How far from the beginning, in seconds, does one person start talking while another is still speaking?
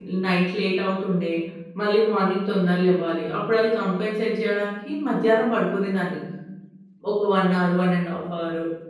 none

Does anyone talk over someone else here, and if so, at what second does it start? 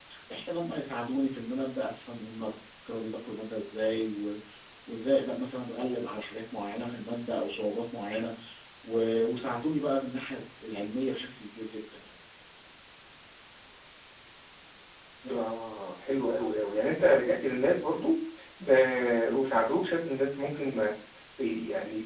none

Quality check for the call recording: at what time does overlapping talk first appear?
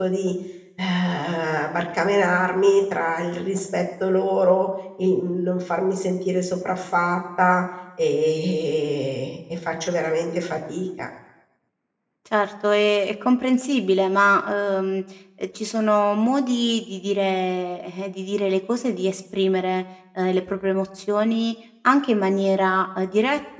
none

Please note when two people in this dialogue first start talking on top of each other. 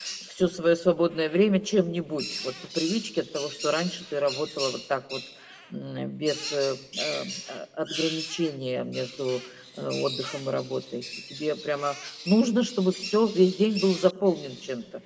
none

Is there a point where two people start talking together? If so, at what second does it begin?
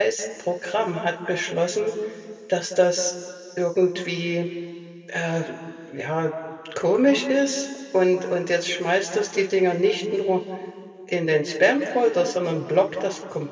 none

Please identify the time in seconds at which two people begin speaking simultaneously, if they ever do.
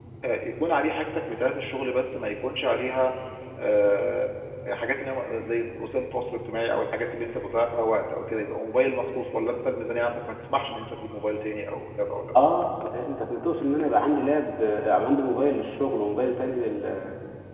none

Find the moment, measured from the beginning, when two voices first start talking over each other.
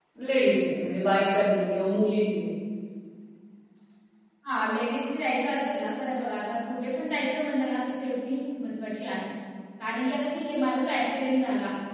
none

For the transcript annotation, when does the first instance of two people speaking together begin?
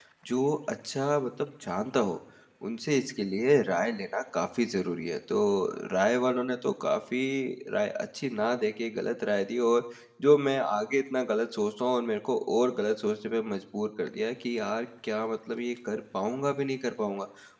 none

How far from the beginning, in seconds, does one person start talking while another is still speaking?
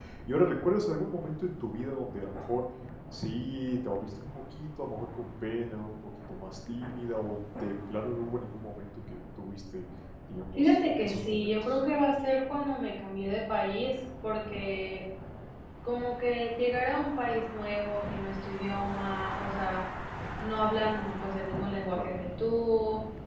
10.6 s

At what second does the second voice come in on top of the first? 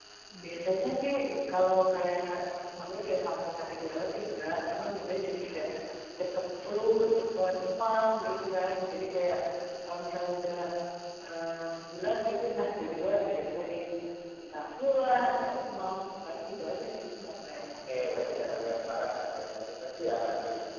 17.5 s

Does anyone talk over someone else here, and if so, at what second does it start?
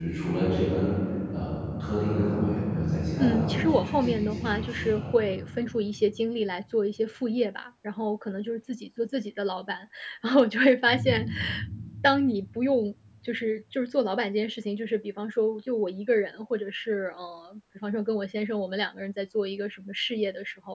3.2 s

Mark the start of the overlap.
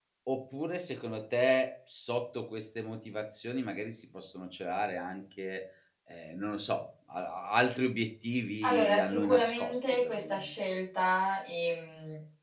8.6 s

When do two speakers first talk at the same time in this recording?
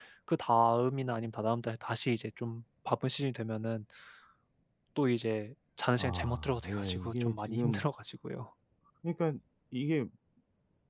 6.0 s

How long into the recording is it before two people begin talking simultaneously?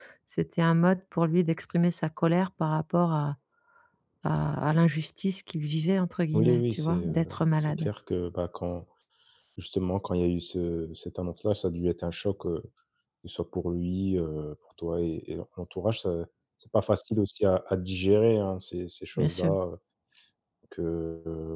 6.3 s

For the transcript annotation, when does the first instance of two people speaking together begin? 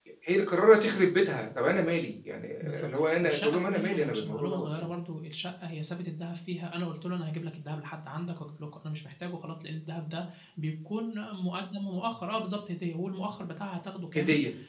2.6 s

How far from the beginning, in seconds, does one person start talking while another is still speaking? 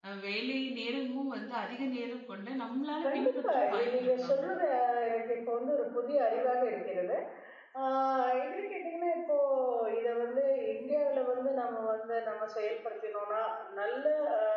3.0 s

